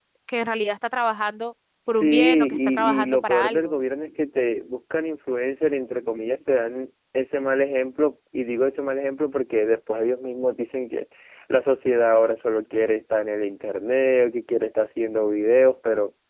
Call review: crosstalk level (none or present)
present